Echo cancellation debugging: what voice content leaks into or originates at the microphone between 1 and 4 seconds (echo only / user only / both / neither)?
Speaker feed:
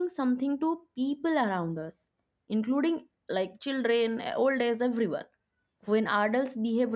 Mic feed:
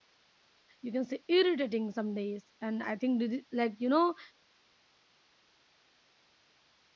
user only